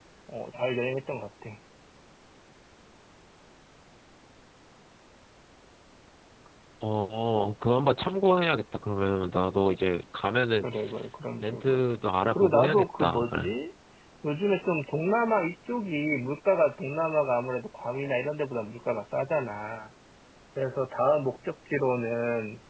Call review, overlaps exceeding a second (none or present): present